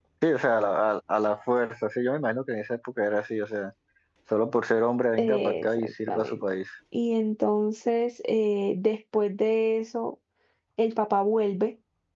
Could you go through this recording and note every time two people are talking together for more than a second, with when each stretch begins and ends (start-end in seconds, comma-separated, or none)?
5.2-6.4